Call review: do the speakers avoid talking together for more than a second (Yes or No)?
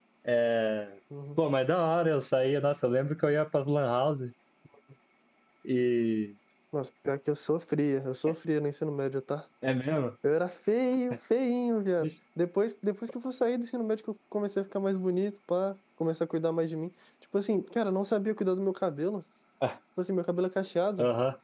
Yes